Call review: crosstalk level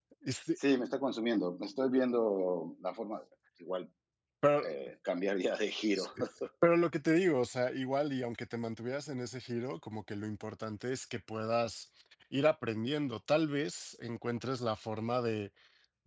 none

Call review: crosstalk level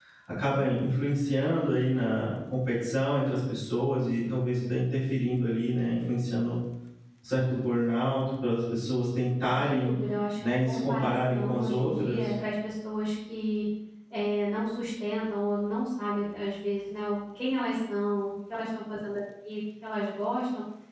present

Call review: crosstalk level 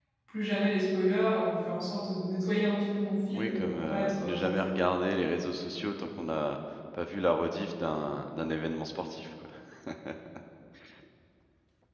present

